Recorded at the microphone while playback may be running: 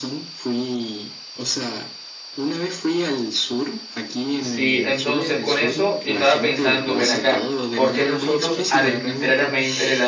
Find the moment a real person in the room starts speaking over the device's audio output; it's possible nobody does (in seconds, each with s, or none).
4.4 s